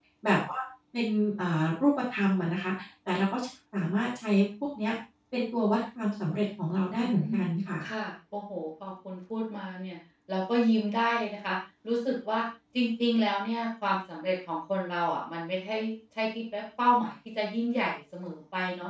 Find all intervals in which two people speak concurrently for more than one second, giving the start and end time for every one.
none

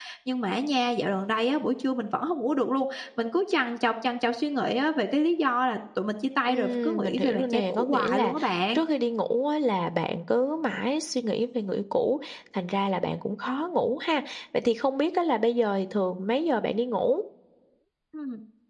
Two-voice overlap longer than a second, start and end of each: 6.5-8.3

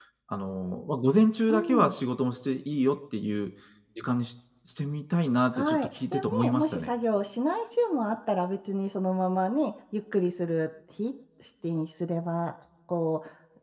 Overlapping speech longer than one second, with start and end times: 5.5-6.9

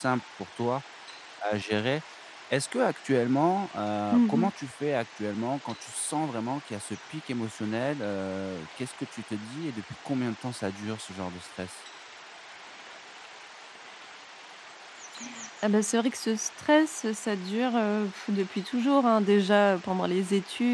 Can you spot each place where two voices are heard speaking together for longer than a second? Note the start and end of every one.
none

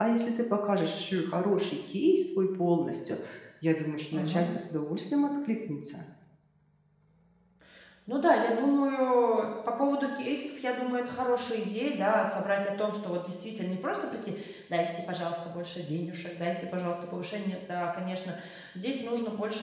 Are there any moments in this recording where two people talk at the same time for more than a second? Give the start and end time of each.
none

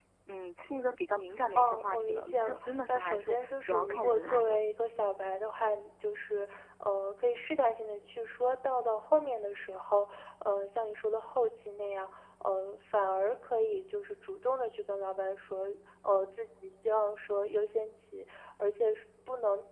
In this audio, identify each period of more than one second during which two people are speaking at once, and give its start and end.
1.6-4.6

